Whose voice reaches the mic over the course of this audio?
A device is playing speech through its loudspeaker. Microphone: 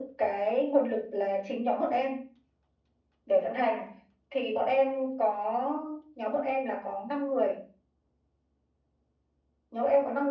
echo only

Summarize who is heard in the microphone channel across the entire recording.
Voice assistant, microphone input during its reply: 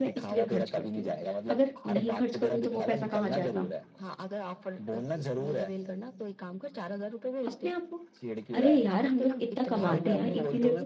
both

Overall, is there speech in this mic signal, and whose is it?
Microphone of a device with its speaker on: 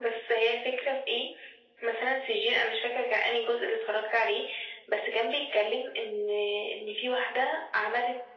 echo only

